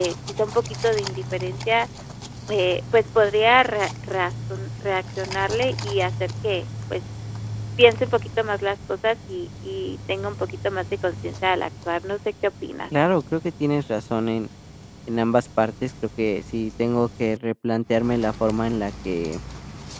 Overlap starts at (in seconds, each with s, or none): none